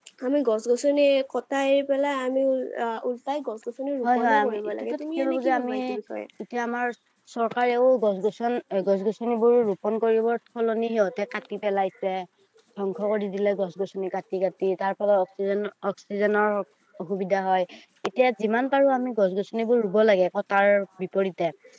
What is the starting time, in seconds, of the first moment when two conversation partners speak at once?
4.0 s

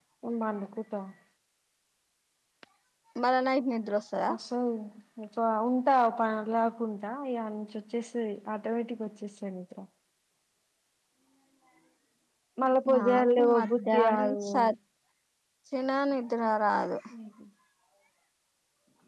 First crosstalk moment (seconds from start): 12.9 s

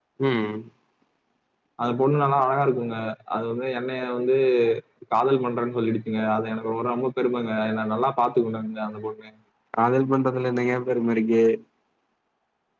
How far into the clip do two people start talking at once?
none

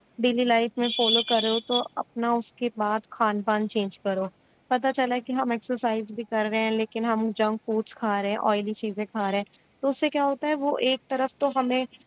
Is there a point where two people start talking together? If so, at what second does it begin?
none

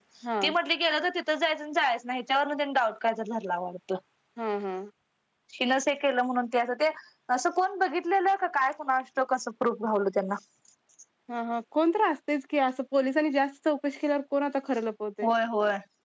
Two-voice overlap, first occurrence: none

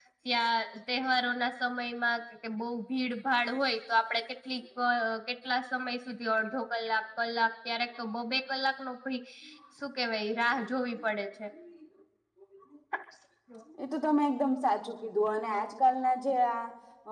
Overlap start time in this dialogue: none

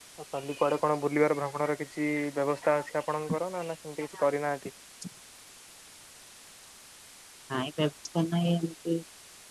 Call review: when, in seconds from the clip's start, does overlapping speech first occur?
none

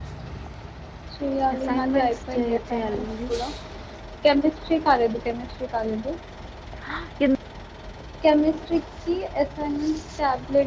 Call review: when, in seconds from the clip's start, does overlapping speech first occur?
1.7 s

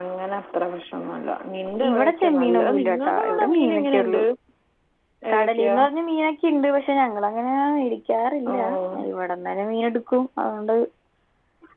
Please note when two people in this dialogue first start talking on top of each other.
1.9 s

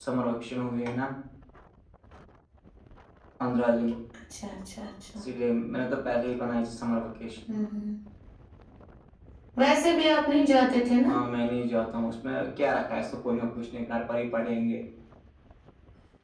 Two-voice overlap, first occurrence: none

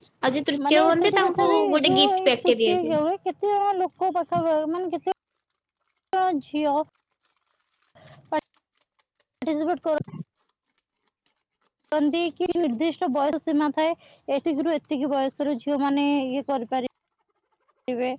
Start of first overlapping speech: 0.7 s

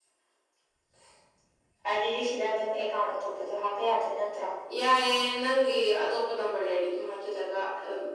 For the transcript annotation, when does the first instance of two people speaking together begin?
none

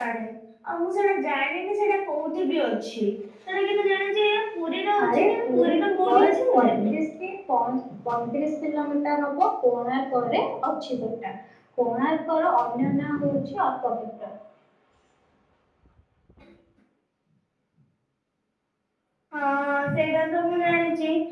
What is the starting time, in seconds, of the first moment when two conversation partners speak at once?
5.0 s

